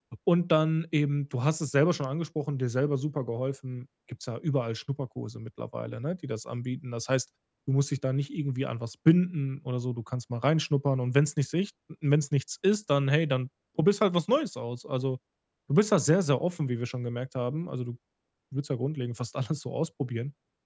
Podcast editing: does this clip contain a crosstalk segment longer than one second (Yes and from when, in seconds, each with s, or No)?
No